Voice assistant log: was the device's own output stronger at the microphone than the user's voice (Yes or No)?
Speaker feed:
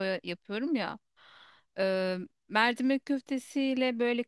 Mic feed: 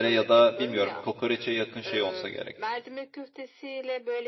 No